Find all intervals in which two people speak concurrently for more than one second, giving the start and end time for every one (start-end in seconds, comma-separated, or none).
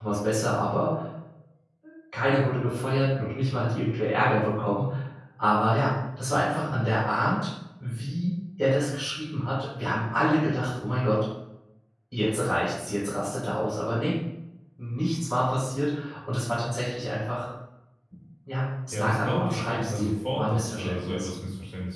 18.9-21.3